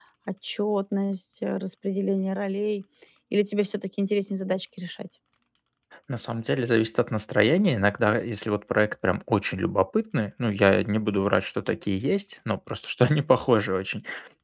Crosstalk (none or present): none